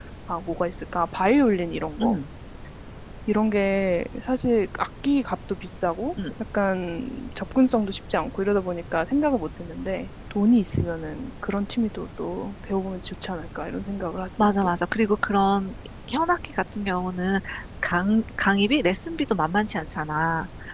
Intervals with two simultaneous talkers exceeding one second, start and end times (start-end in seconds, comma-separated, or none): none